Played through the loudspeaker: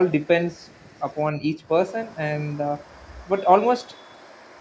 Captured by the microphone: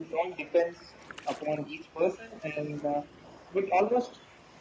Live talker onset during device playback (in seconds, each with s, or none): none